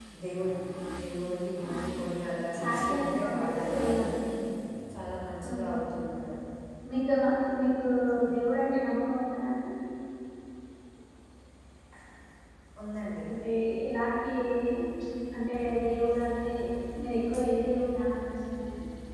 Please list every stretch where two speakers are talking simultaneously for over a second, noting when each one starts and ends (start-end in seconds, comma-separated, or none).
2.7-4.1